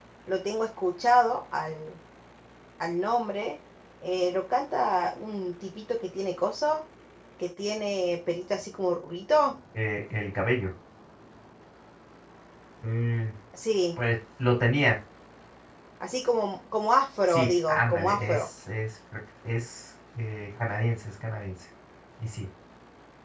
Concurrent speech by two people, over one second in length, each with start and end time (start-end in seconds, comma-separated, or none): 17.3-18.5